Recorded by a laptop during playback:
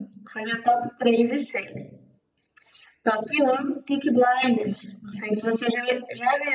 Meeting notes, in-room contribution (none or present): none